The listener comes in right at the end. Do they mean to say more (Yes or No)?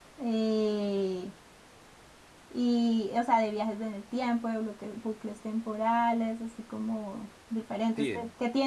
No